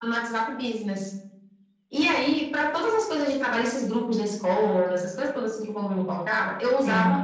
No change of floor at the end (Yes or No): Yes